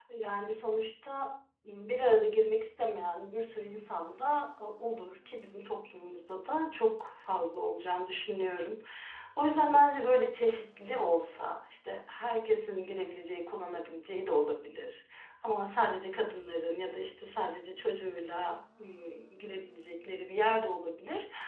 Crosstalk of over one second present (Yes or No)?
No